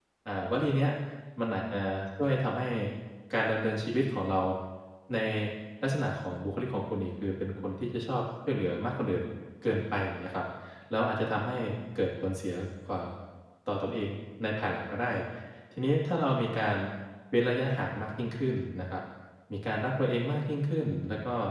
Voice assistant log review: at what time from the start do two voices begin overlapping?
none

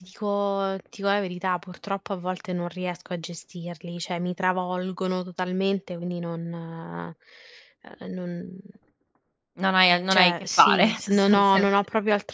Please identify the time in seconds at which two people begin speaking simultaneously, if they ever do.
10.1 s

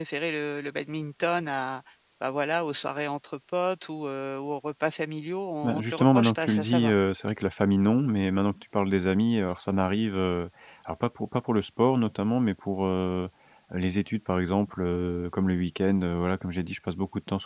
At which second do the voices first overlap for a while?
5.6 s

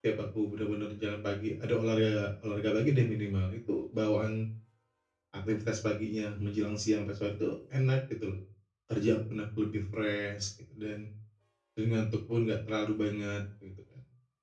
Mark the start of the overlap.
none

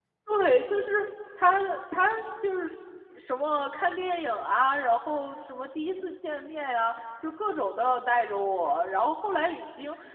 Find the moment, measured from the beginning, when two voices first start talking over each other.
none

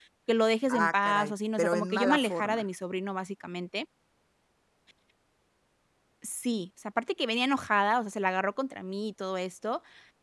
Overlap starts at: 0.7 s

